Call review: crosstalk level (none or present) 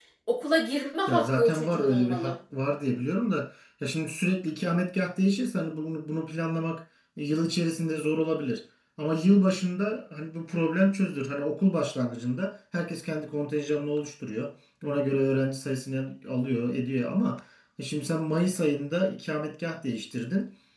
present